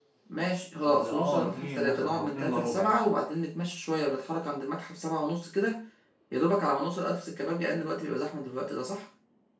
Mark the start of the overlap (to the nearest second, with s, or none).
1 s